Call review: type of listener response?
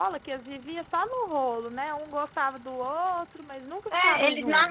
taking over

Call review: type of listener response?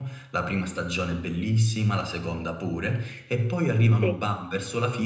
listening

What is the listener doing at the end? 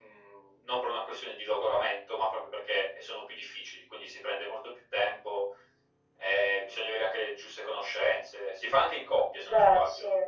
listening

